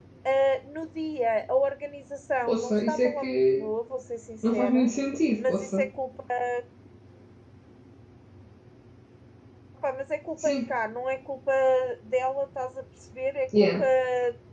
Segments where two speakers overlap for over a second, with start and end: 2.5-3.7

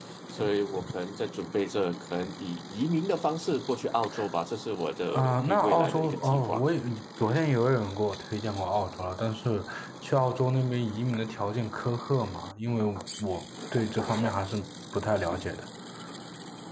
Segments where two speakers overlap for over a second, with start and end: 5.1-6.6

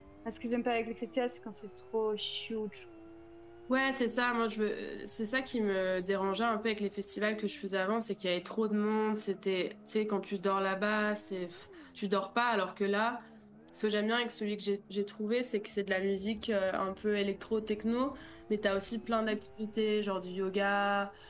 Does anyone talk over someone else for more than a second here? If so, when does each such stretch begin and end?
none

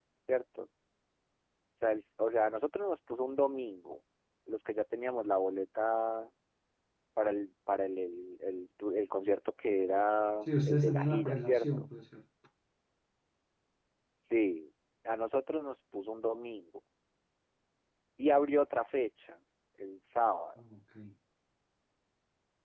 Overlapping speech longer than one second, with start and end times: 10.5-11.9

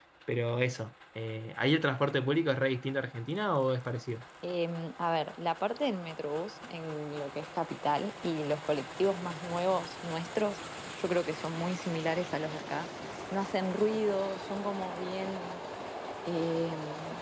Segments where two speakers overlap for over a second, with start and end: none

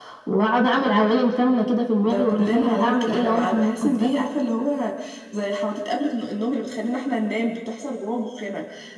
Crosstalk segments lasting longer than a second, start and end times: 2.0-4.1

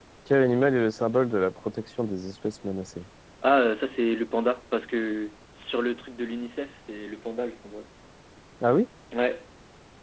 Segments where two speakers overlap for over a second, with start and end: none

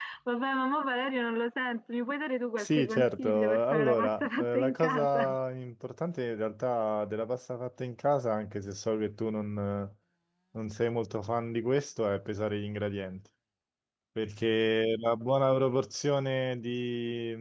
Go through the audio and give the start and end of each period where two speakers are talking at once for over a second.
2.6-5.4

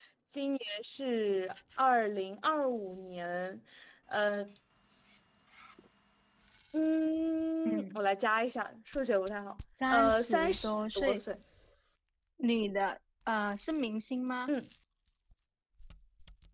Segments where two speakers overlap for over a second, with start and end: 9.9-11.2

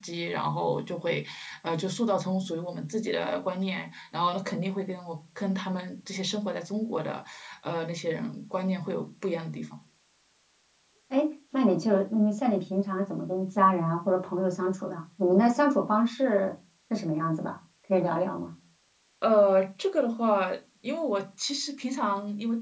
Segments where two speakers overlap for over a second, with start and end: none

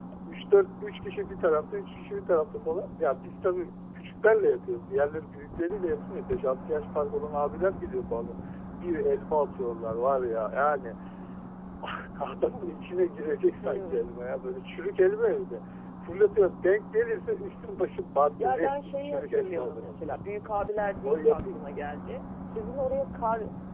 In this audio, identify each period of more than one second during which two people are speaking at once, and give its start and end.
18.4-20.1

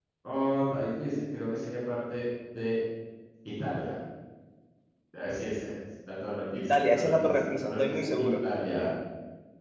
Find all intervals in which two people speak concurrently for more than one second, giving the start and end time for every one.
6.5-8.3

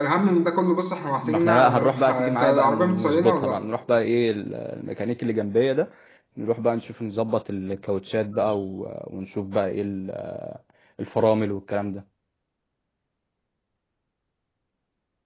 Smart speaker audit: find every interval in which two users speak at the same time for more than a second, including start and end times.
1.2-3.6

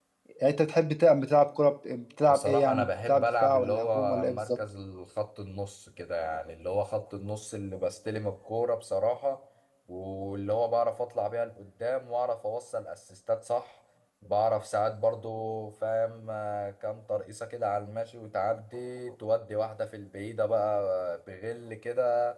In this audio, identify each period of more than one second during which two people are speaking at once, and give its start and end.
2.3-4.6

